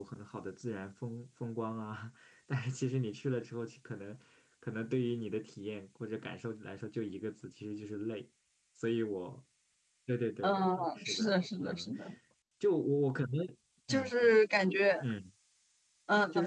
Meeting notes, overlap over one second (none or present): present